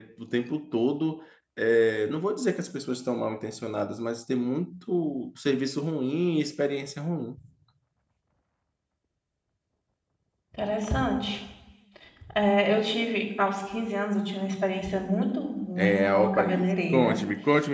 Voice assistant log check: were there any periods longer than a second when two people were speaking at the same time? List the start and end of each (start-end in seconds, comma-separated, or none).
15.8-17.2